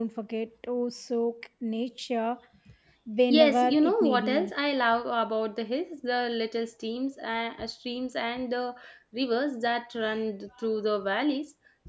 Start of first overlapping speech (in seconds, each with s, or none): 3.3 s